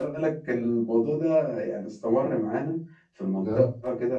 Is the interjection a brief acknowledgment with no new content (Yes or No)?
Yes